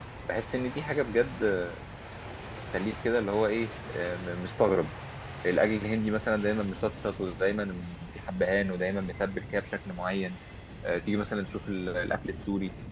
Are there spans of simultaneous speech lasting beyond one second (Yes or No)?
No